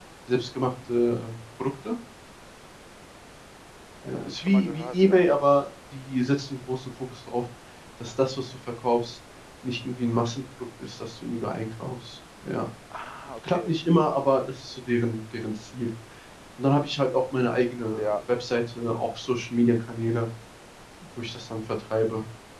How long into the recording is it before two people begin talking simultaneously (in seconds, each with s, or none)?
4.1 s